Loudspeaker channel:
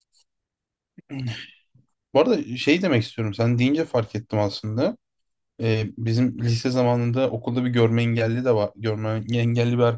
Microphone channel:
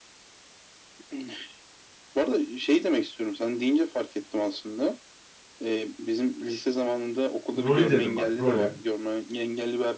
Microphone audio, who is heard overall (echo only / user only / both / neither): both